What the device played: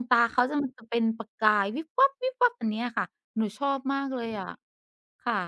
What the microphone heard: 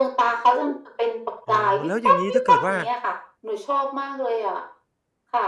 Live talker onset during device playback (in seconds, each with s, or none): 1.5 s